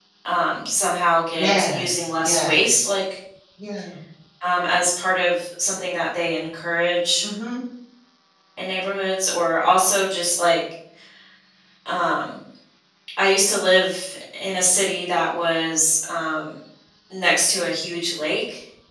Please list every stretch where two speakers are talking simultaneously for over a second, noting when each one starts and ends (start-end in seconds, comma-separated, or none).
1.3-2.8